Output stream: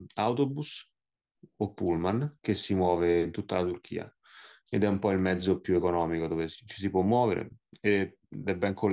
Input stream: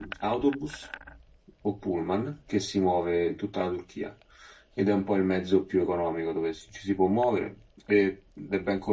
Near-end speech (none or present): none